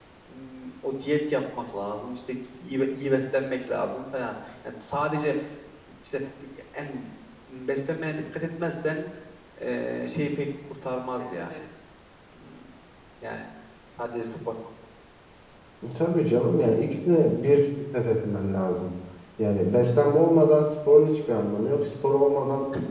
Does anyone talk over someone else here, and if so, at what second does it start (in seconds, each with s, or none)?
none